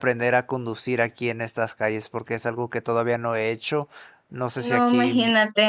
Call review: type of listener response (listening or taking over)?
taking over